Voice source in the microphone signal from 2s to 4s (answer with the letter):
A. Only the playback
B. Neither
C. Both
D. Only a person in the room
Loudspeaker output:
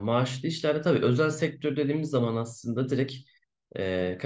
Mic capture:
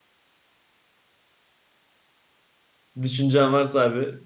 D